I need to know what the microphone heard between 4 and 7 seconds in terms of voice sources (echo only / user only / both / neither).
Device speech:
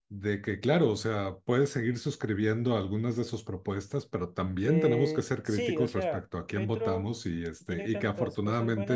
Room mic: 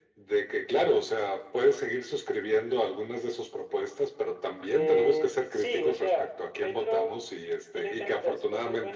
echo only